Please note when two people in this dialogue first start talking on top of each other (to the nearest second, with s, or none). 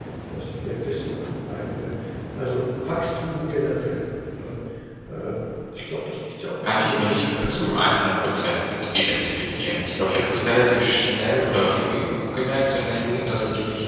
7 s